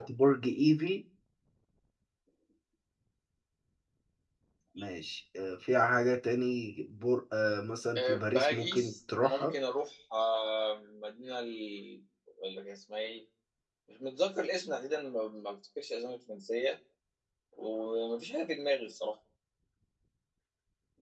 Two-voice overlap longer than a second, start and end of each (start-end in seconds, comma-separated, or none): 8.0-9.5